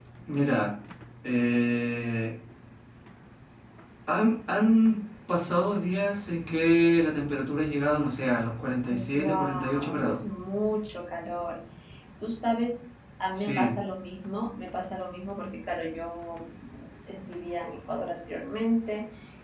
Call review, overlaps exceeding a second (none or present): present